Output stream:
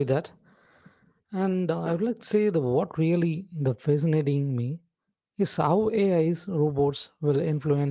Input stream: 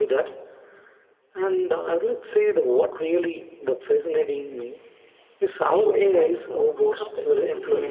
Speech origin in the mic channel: both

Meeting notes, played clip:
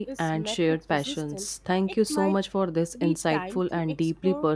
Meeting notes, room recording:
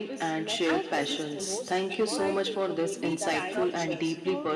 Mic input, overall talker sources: both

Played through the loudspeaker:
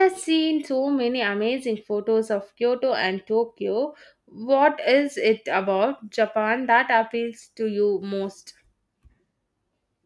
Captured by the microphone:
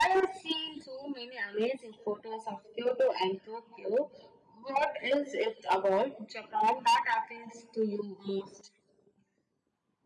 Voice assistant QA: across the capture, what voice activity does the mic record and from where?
echo only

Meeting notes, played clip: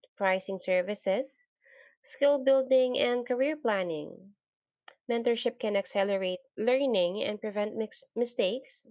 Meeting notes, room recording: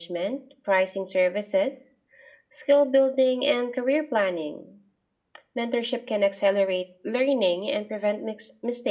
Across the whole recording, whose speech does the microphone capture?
echo only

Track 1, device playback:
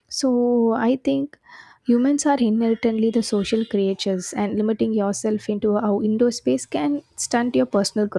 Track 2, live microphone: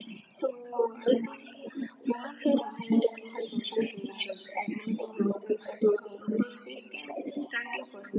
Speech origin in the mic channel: echo only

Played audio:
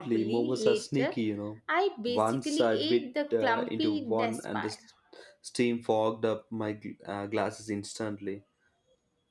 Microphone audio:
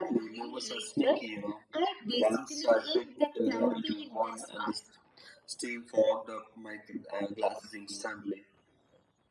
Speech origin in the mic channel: echo only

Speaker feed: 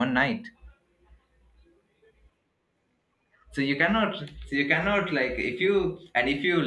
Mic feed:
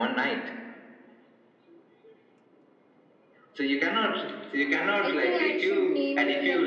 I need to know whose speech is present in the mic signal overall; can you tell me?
both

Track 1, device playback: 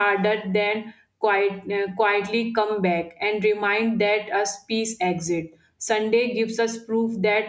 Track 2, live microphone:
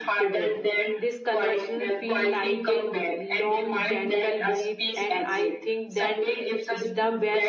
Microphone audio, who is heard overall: both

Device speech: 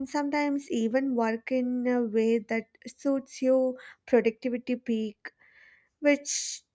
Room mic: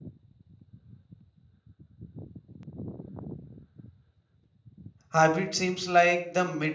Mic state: user only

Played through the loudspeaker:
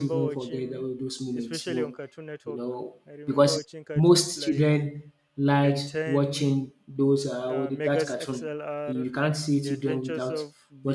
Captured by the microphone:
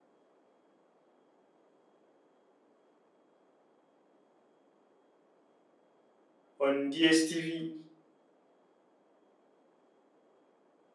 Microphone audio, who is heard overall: user only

